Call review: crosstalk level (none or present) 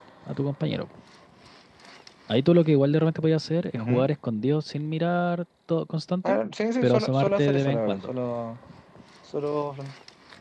present